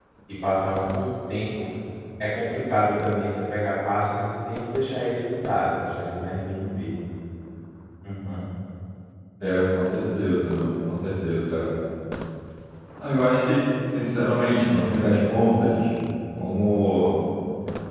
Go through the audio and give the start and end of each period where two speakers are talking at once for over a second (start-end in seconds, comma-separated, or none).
none